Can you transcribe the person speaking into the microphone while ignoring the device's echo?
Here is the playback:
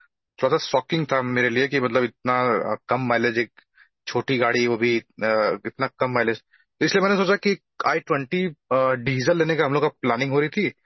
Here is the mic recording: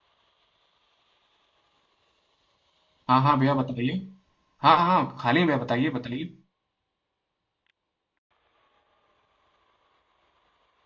हाँ हाँ भैया बताइए हाँ हाँ खाली हैं भैया बताइए बताइए

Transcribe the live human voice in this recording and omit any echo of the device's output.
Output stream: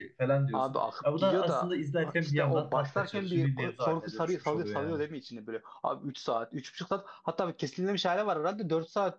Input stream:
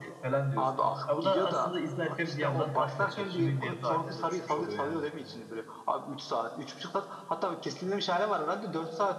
none

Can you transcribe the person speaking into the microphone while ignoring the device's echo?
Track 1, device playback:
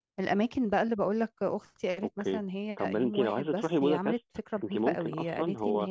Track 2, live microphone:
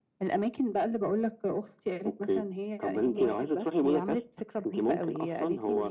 اوكي

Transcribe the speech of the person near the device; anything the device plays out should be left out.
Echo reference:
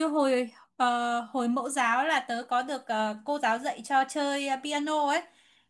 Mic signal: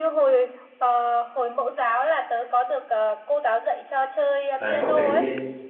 Đấy, cậu thấy

